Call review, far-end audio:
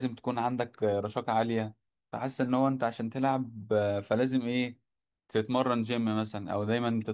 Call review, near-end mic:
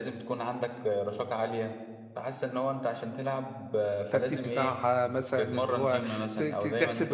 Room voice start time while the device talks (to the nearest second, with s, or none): 4 s